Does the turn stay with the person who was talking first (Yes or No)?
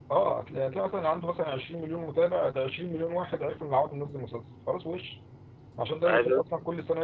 Yes